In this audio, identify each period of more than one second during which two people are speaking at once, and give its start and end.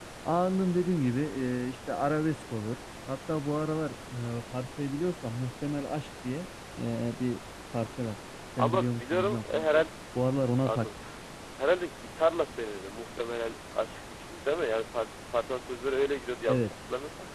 8.6-9.8

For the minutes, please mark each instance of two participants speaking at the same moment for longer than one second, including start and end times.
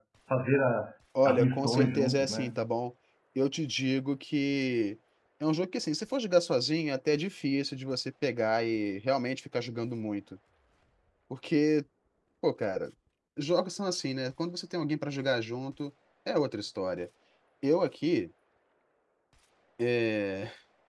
1.2-2.5

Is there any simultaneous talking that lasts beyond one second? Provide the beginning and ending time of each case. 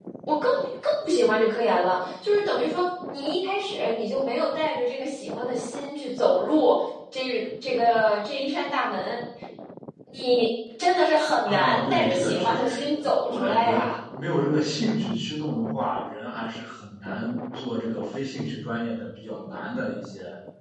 11.5-13.9

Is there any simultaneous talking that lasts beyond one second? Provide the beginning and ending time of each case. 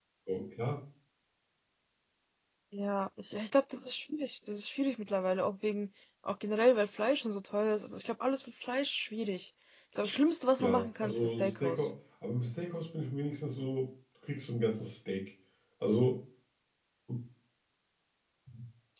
10.6-11.9

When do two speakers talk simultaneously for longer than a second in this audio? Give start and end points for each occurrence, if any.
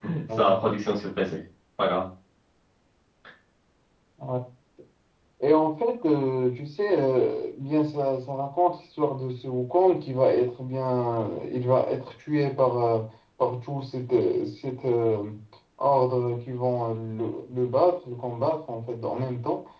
none

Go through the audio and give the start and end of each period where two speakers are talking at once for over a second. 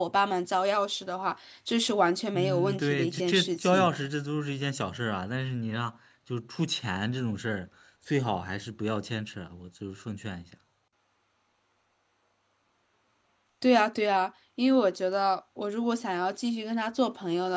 2.3-3.9

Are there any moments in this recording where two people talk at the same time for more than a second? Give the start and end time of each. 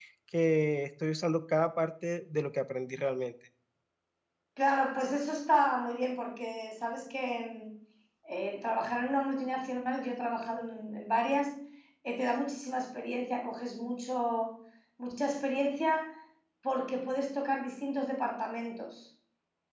none

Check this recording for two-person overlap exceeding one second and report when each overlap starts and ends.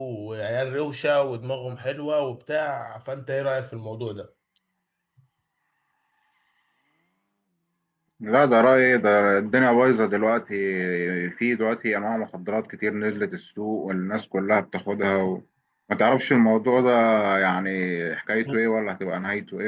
none

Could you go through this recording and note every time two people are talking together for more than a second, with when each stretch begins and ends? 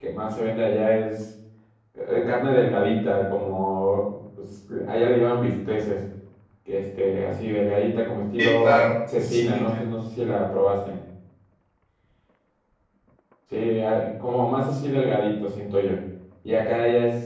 8.4-9.6

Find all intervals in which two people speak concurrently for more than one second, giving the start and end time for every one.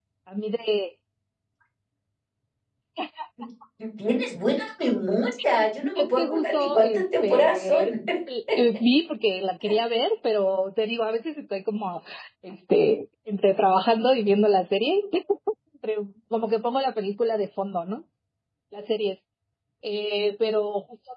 5.8-8.0

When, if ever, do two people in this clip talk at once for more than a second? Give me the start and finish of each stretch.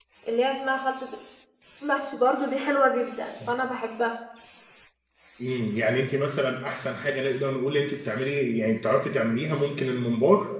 none

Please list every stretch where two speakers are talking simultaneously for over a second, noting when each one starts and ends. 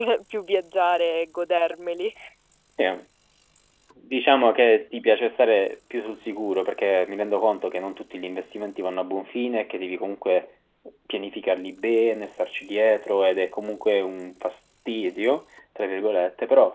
none

